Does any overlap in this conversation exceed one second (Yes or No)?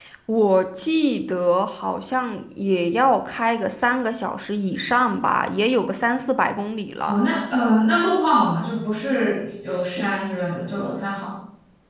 No